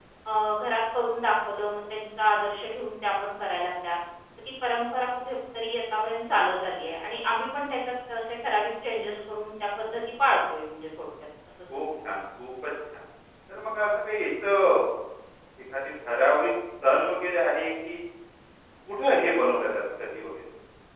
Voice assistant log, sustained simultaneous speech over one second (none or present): none